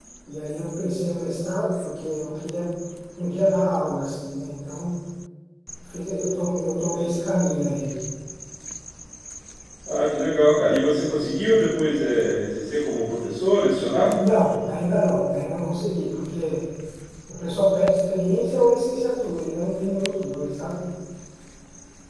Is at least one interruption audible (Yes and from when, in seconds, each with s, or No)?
No